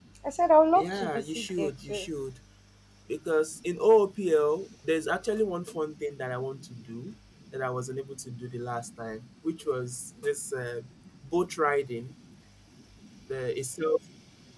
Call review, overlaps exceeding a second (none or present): present